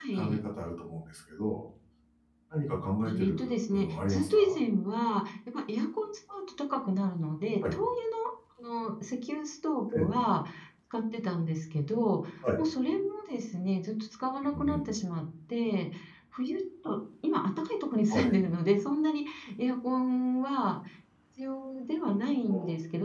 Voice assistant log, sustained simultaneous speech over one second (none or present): present